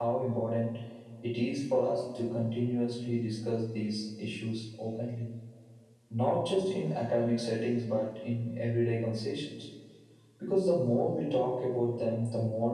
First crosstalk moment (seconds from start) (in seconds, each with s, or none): none